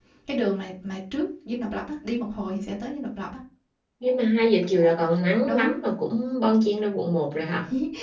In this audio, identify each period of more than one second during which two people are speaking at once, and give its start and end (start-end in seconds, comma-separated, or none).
none